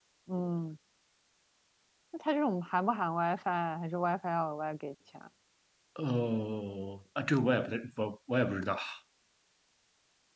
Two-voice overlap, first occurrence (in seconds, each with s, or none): none